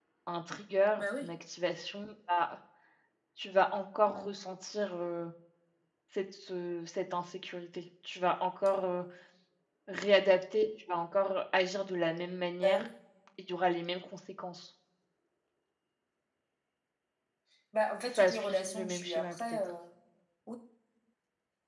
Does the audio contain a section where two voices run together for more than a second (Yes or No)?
Yes